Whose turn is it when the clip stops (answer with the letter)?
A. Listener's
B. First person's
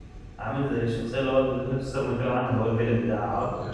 A